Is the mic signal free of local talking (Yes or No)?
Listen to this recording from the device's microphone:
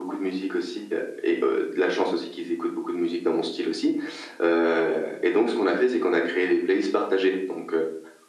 Yes